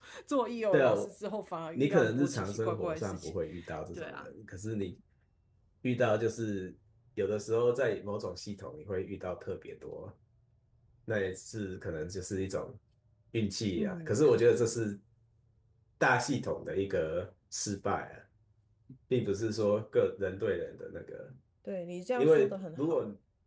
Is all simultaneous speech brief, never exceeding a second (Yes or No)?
No